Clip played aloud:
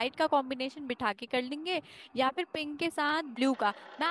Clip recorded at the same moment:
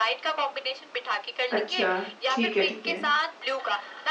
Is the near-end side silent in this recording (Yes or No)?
No